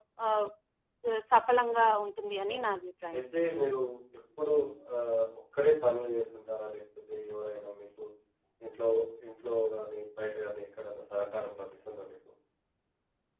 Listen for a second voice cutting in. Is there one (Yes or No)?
No